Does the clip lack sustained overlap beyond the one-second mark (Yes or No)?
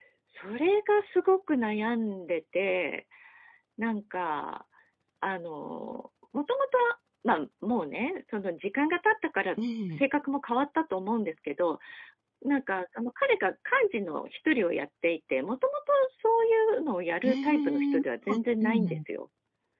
No